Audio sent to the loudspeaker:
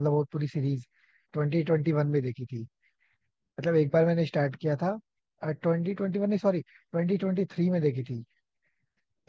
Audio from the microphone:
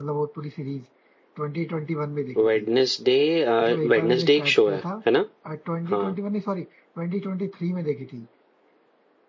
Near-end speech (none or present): present